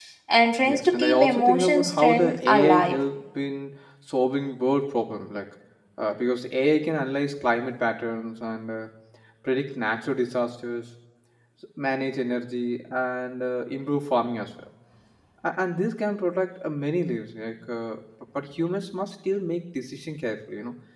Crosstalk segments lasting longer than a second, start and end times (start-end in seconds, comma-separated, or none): 0.7-3.0